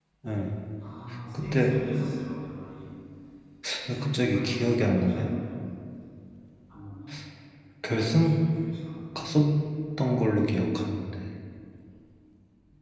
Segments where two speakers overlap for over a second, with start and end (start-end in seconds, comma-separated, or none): 4.0-5.3